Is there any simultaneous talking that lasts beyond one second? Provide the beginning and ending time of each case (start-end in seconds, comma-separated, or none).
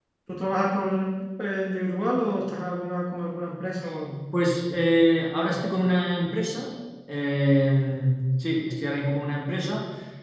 none